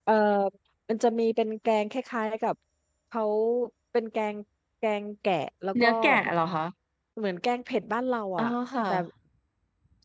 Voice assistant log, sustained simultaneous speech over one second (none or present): none